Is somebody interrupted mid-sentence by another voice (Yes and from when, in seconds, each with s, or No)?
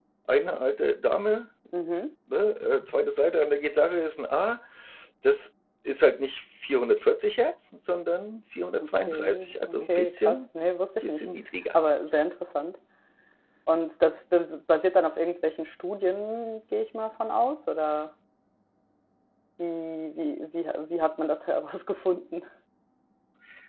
Yes, from 8.8 s